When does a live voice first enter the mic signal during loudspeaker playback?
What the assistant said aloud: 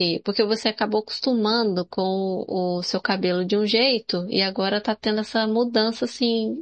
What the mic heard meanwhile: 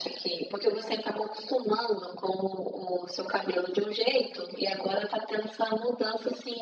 none

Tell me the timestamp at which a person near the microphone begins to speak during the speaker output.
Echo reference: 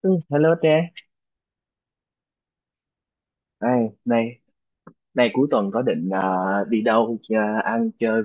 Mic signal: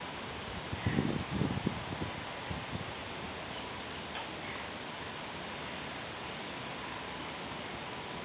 none

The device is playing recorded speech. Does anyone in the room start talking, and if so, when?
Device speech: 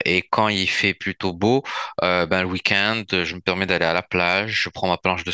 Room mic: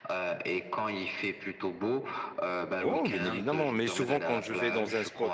2.8 s

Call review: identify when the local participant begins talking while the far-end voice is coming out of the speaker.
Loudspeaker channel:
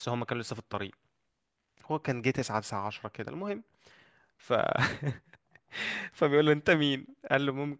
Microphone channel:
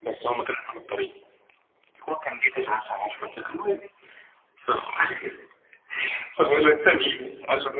6.4 s

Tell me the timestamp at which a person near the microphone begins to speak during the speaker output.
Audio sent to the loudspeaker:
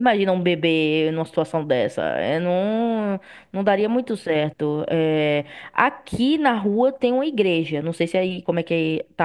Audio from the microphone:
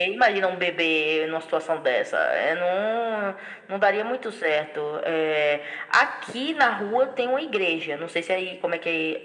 none

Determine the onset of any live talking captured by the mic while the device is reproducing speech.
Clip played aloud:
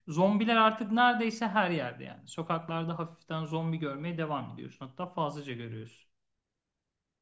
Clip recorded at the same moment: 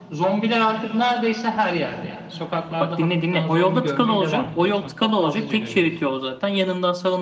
2.8 s

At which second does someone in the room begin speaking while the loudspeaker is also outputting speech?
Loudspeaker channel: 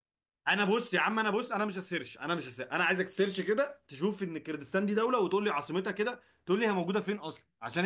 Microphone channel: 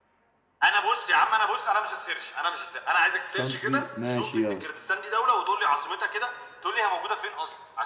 3.4 s

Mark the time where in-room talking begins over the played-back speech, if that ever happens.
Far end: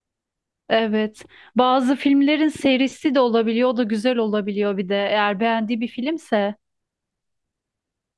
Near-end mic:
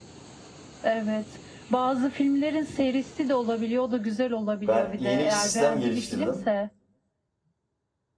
4.7 s

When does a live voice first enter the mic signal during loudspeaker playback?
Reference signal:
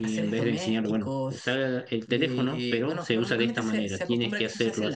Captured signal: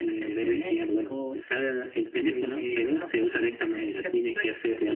none

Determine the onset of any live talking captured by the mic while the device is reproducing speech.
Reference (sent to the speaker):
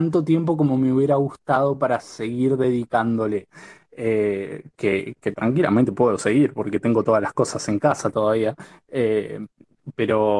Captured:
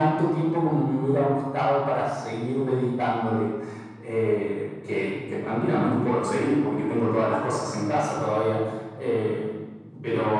none

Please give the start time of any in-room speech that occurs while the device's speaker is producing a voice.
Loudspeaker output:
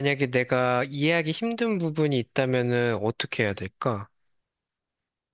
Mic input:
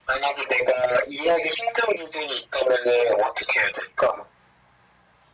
none

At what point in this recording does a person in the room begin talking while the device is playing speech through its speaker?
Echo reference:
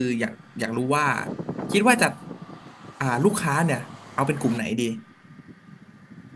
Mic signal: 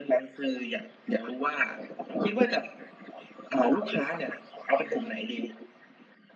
none

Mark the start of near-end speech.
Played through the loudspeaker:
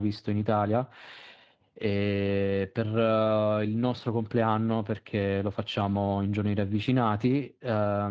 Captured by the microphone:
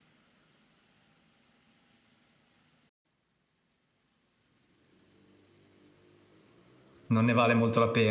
7.1 s

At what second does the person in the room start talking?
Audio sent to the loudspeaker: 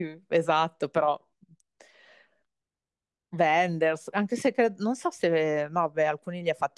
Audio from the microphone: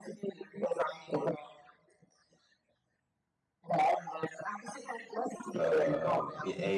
5.5 s

